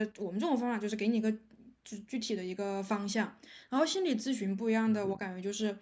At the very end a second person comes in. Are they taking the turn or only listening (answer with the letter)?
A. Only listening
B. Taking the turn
A